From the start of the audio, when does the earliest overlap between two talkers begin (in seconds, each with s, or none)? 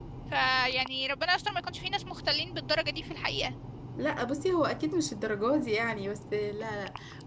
none